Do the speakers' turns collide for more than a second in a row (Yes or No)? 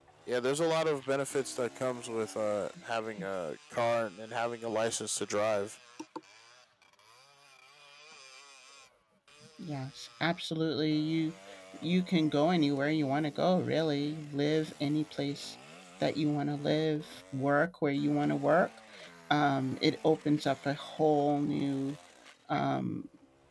No